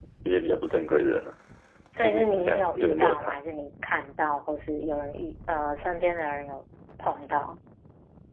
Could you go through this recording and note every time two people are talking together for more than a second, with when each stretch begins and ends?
2.0-3.4

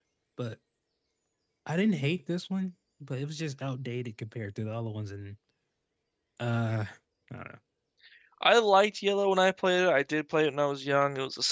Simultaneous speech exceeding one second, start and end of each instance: none

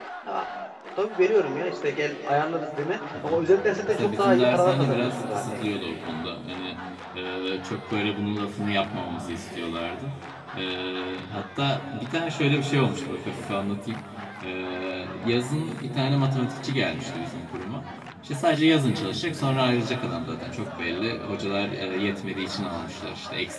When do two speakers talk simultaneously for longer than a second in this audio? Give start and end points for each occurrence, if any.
3.9-5.8

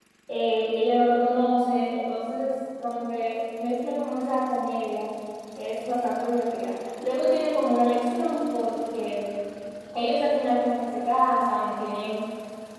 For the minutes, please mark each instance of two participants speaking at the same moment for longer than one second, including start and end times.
none

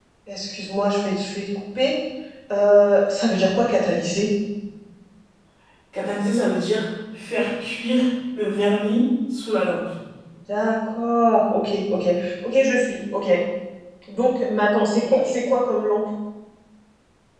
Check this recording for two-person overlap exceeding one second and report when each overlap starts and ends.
none

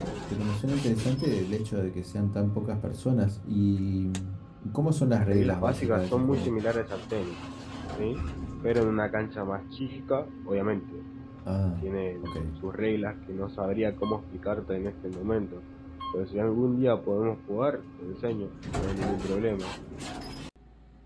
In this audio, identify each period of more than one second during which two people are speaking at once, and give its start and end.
4.7-6.5

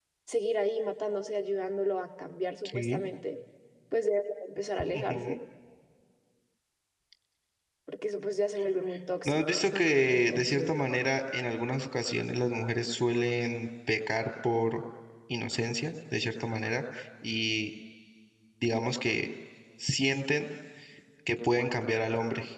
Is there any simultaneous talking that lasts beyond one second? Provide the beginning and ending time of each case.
9.2-10.7

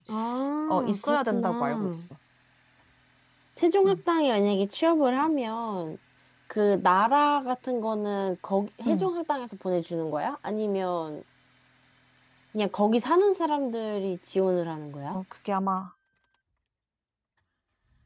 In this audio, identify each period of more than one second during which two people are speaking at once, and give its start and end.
0.7-2.1

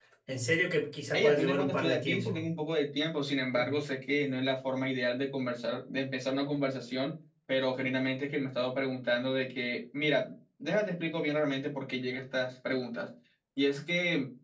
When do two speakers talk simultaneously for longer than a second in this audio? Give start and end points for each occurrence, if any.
1.1-2.5

